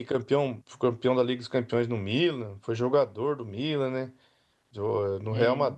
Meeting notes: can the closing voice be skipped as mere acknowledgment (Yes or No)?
Yes